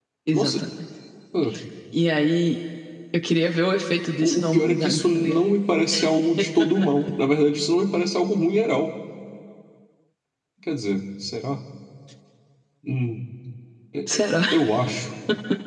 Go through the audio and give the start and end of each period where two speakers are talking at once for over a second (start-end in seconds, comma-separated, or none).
4.2-5.5